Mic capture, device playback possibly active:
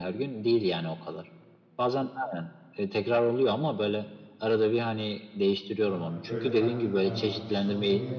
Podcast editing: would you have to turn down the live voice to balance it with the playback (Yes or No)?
No